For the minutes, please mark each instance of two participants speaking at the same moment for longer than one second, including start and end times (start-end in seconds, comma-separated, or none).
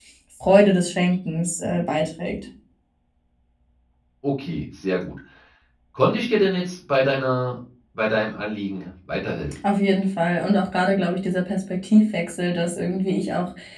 none